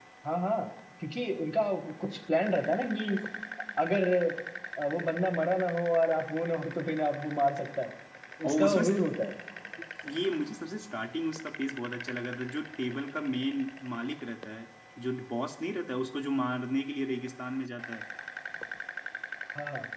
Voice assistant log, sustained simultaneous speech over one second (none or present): none